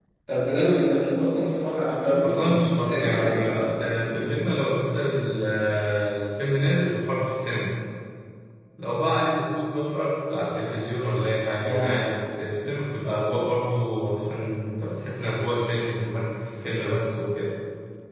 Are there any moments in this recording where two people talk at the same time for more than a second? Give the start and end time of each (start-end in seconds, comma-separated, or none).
2.2-4.3